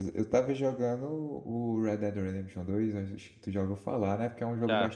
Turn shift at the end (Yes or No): No